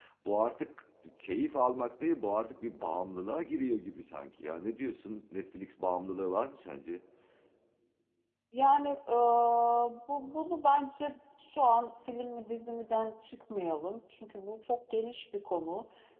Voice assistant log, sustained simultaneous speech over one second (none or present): none